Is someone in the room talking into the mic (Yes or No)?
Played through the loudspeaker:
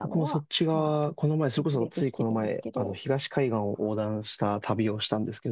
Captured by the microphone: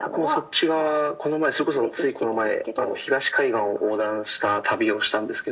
No